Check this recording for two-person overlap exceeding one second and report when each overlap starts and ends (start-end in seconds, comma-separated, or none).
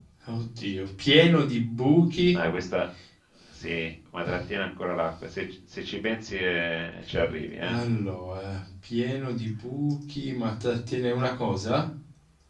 none